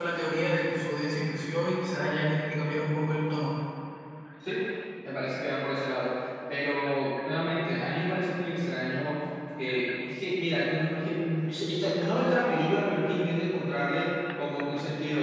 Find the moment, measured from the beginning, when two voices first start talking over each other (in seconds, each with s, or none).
none